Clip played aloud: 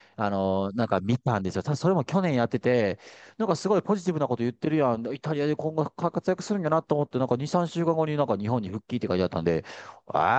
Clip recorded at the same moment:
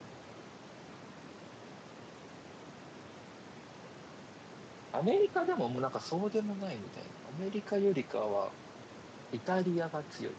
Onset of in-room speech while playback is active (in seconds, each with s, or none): 4.9 s